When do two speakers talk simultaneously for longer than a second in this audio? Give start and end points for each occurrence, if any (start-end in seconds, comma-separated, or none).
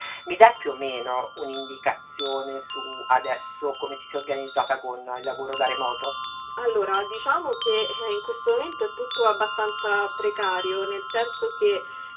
none